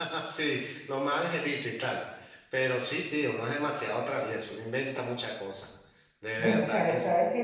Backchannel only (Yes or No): No